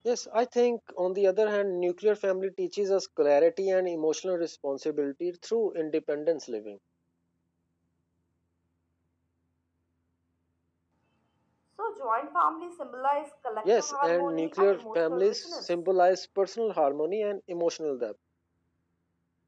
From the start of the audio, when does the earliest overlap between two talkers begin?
13.6 s

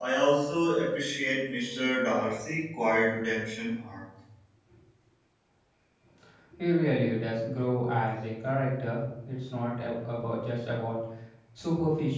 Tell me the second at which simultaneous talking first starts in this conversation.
none

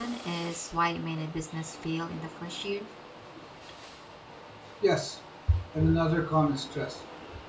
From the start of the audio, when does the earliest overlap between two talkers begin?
none

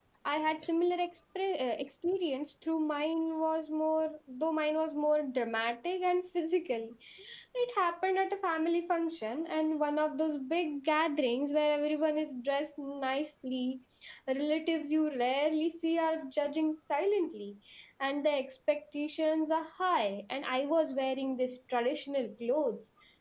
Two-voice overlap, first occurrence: none

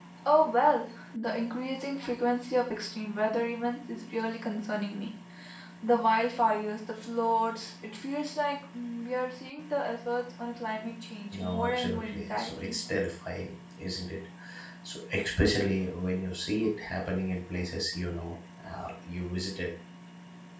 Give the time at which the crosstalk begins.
11.3 s

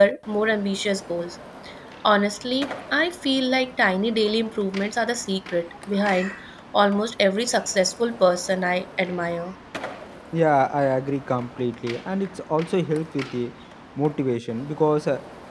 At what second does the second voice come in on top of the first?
none

